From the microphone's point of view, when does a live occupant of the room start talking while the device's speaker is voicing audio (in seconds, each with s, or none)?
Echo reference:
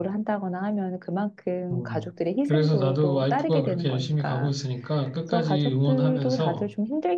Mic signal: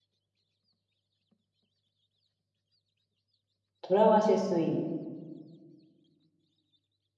3.8 s